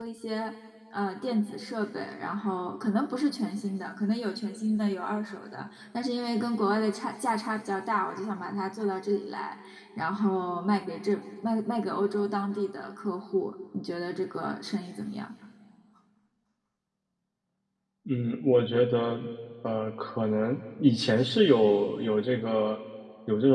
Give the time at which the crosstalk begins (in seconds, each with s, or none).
none